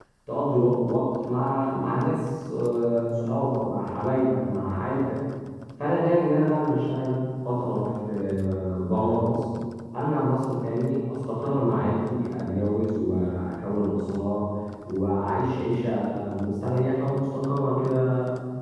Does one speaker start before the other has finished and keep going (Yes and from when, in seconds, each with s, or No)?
No